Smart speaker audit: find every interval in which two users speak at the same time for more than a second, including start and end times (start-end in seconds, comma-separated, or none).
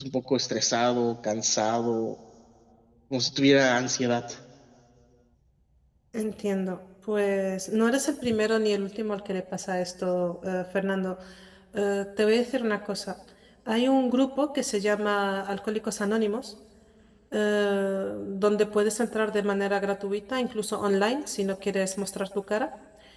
none